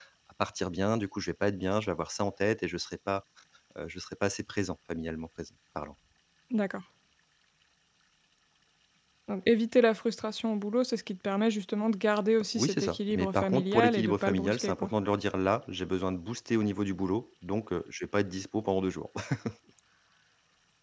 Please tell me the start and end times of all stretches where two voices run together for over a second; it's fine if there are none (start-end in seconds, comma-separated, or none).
12.6-14.9